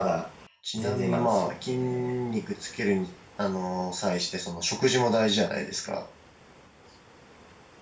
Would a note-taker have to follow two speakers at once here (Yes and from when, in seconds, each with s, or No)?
Yes, from 0.8 s